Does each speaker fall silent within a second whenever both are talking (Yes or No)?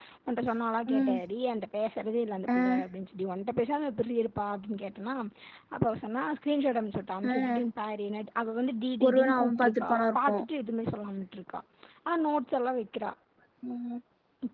No